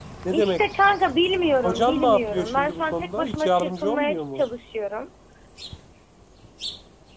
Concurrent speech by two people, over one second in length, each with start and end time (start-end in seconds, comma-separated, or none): 1.6-4.4